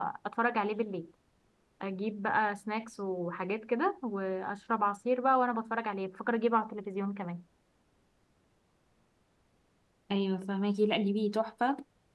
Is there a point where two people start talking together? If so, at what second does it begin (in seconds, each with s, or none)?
none